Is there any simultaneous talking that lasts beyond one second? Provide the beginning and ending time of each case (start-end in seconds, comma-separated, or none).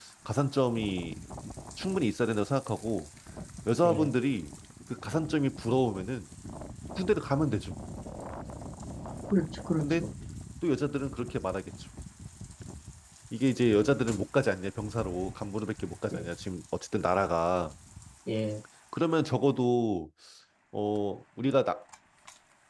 none